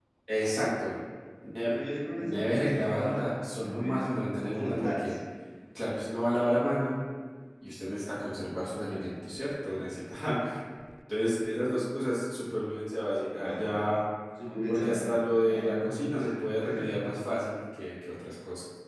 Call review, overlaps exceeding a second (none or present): present